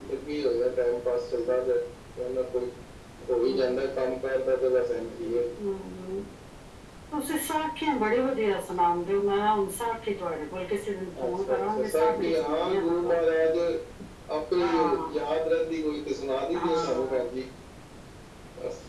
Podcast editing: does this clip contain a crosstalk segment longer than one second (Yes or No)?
Yes